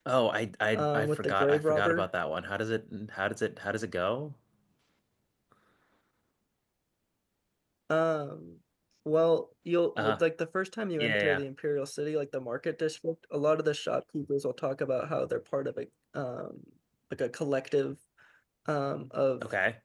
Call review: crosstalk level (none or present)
present